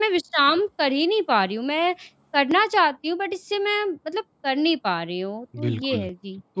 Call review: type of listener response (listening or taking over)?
taking over